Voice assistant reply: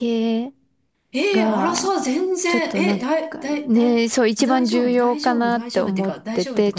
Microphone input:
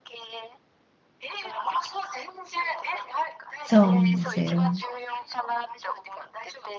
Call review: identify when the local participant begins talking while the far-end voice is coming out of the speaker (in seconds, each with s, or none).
3.6 s